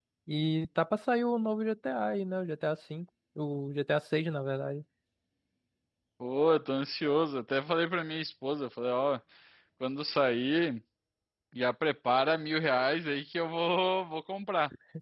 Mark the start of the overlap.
none

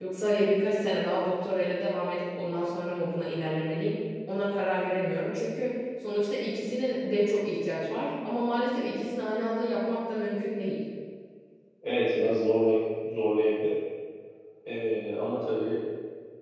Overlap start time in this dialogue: none

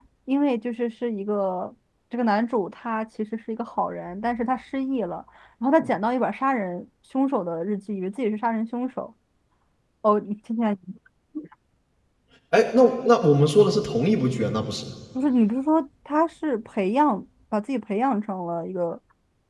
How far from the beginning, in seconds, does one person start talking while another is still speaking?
none

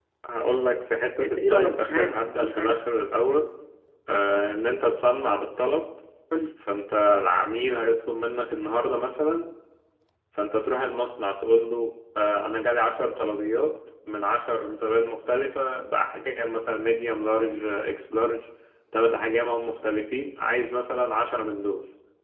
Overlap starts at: 1.2 s

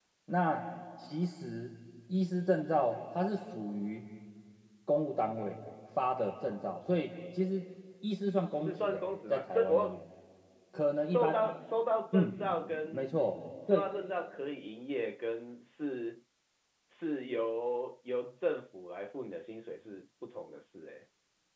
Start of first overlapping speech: 8.6 s

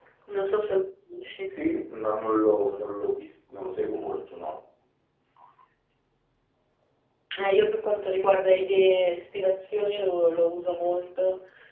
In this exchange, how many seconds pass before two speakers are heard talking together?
none

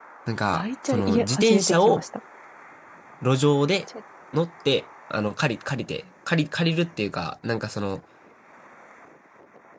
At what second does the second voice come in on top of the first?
0.5 s

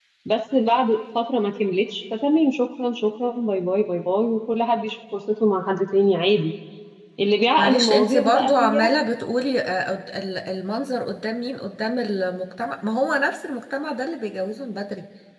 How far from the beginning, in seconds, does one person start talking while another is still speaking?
7.6 s

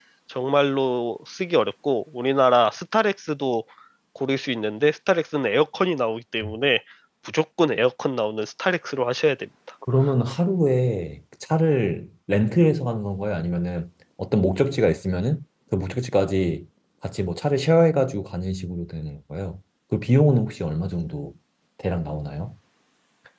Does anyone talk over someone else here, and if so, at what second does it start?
none

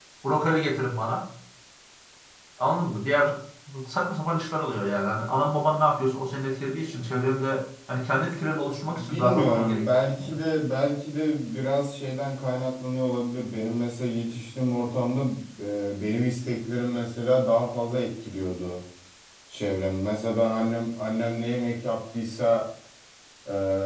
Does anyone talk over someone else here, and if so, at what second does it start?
8.8 s

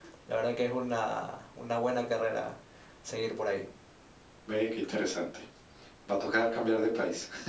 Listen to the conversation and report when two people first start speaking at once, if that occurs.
none

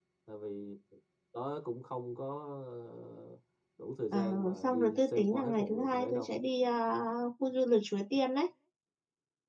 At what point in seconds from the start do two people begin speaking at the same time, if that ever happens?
4.1 s

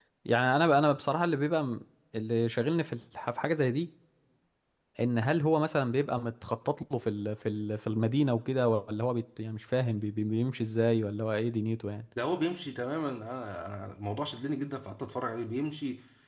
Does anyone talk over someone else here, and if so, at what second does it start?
none

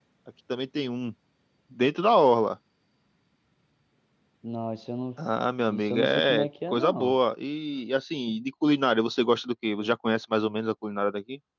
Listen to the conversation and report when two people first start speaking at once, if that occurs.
5.7 s

